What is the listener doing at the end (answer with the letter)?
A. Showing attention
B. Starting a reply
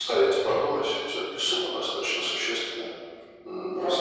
A